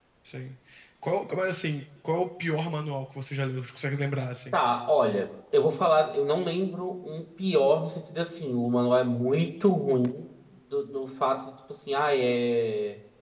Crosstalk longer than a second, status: none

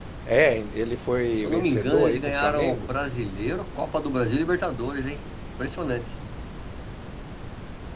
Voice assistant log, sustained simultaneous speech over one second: present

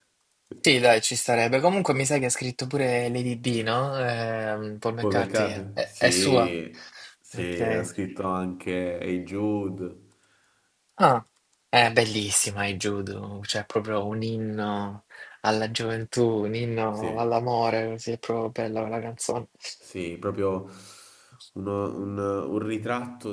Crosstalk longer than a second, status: present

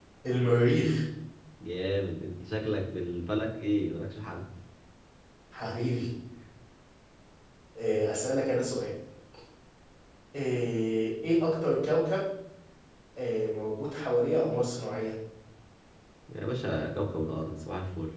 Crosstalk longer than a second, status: none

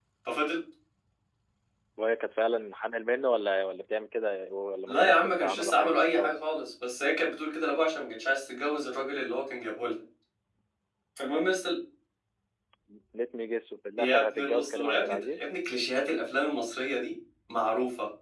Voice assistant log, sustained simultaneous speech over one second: present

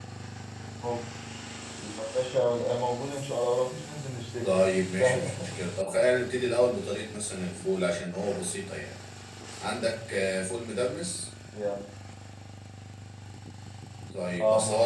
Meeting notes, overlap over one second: none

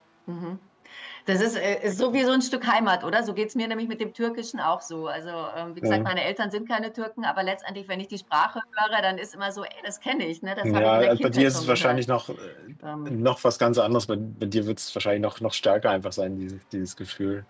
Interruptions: present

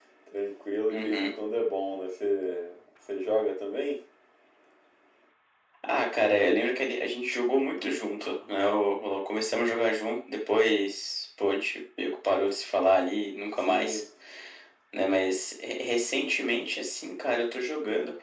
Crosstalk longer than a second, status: none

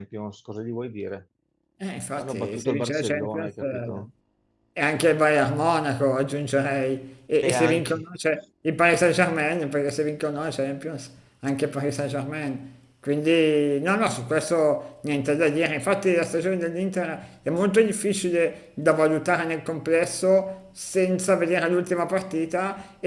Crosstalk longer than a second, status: present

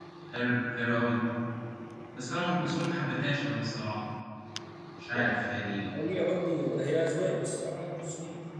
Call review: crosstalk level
none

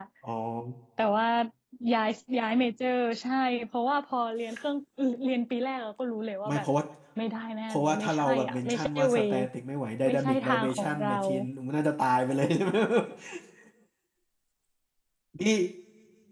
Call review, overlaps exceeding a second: present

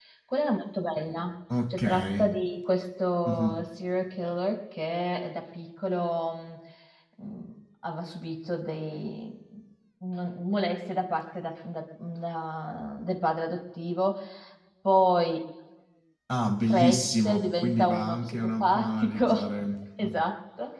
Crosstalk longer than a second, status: present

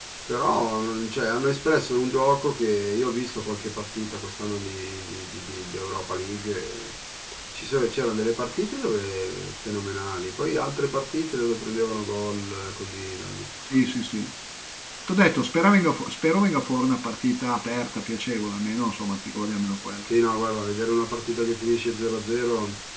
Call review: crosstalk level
none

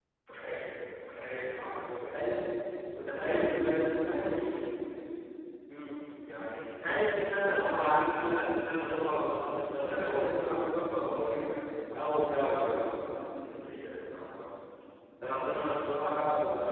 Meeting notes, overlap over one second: present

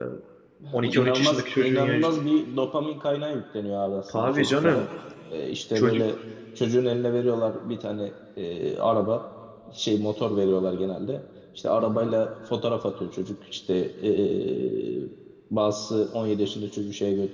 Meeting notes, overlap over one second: present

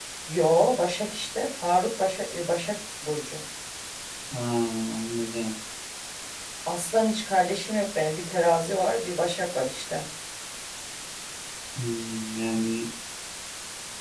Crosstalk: none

